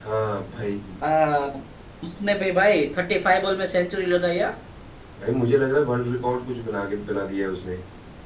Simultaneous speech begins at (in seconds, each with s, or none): none